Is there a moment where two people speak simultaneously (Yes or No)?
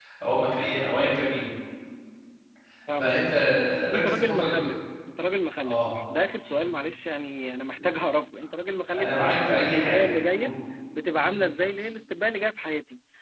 Yes